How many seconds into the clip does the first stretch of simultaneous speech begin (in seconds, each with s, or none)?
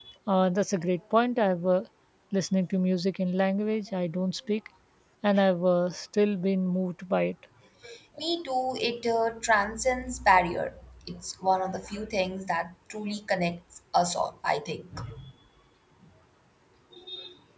none